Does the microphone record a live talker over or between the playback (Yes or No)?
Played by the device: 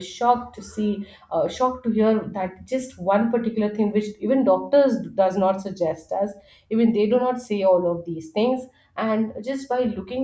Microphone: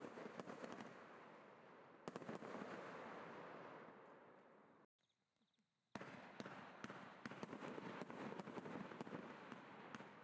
No